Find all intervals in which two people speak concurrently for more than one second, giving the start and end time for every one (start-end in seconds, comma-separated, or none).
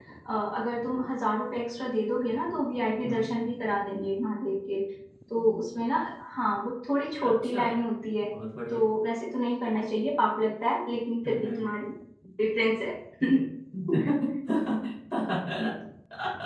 none